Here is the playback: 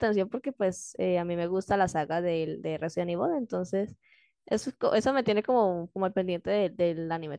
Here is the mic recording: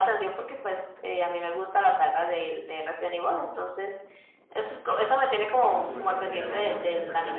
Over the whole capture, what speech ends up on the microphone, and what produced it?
both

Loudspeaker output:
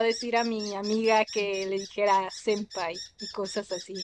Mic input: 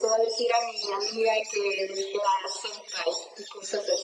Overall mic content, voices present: echo only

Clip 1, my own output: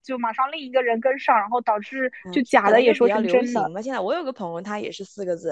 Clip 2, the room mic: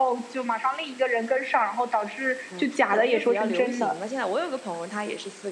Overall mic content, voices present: echo only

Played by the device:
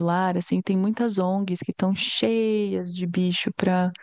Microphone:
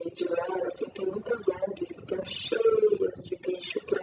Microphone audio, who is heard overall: echo only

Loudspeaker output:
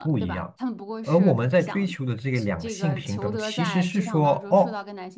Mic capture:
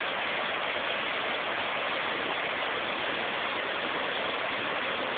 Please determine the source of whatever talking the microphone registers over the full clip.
neither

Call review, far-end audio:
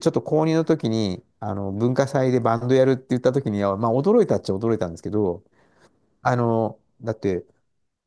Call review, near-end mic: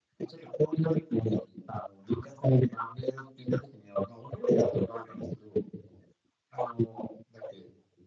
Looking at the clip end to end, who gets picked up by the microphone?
echo only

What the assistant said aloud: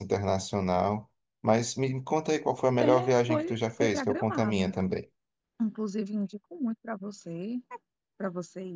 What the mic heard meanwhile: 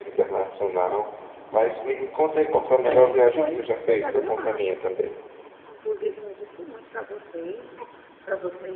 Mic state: echo only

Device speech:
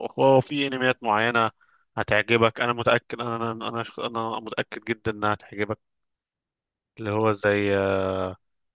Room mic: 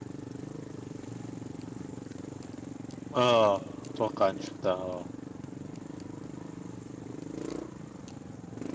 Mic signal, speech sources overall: user only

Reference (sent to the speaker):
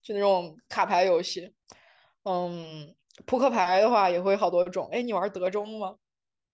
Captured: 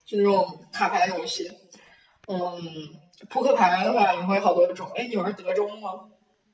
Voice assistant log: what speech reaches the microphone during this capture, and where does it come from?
echo only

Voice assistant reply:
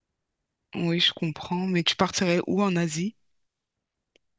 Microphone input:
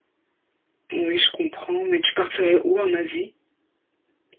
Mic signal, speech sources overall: echo only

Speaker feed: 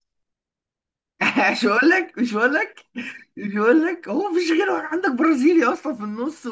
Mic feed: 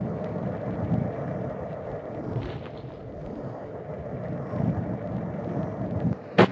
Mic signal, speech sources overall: neither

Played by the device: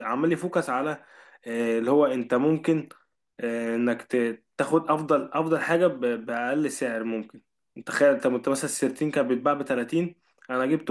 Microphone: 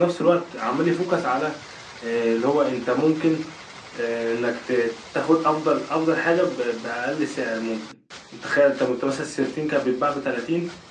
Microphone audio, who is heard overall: echo only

